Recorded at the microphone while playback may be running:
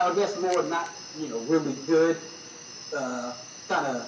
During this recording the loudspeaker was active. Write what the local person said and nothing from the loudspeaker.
none

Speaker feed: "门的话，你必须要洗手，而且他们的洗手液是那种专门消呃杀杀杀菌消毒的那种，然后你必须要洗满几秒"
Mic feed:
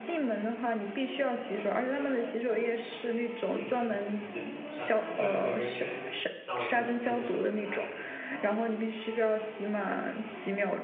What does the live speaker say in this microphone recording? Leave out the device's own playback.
卫生习惯，就是他就是每个人去上完厕所看你手有没有擦干净。

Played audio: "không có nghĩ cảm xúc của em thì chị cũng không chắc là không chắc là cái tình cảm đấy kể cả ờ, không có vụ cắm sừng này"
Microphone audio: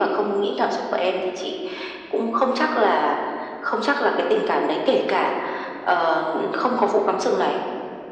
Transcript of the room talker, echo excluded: none

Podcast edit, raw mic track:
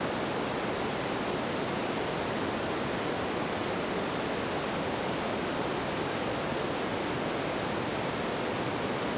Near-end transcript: none

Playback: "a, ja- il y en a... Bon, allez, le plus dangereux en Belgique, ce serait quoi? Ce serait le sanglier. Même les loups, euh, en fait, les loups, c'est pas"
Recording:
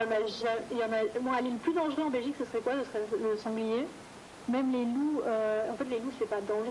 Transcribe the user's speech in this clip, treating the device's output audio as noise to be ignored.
none

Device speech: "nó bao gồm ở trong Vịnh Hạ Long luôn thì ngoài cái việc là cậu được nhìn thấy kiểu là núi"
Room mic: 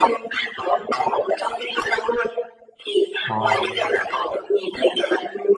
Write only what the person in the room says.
wow

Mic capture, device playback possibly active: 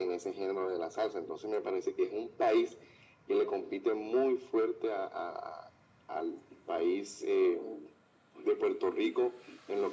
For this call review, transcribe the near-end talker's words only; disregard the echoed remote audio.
none

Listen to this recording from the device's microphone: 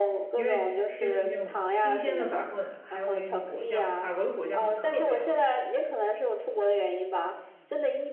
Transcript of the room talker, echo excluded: 因为就是那种新鲜的法棍，还有那个果酱，法国的果酱都特别好吃，

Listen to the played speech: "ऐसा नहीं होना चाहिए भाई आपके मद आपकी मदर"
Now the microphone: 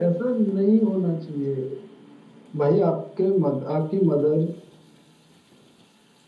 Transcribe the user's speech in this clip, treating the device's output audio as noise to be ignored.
none

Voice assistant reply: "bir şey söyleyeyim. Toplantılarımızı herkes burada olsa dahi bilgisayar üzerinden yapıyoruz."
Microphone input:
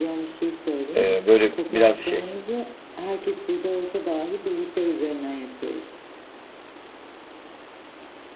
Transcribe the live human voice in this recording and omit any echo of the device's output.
E, böyle biraz şey

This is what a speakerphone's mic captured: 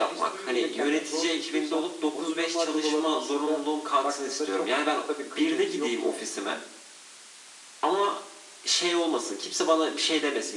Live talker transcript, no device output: none

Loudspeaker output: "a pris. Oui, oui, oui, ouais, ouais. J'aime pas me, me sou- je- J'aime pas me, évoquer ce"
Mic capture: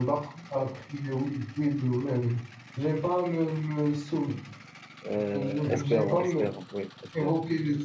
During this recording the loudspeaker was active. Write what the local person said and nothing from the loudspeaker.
Euh, espérons, espérons. Oui, espérons.

